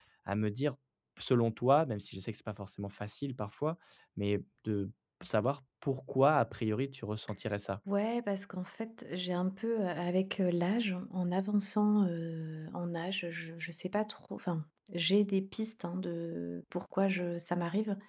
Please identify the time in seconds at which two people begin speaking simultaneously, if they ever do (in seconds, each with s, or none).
none